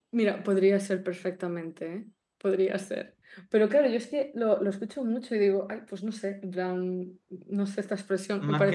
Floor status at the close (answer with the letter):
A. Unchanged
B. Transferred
B